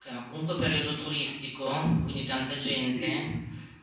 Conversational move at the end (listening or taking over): taking over